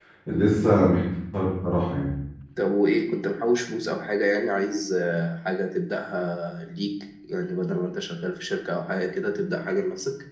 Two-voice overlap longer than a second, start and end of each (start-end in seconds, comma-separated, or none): none